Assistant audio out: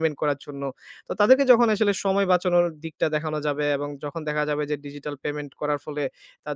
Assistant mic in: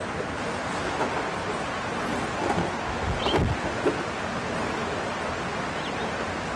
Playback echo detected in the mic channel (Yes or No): No